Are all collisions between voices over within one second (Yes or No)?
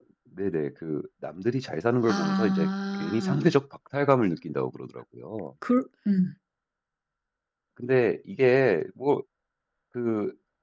No